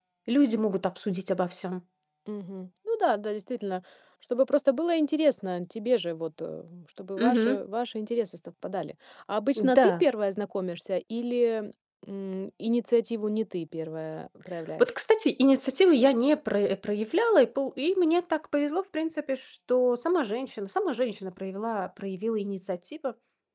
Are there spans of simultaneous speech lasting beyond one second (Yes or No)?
No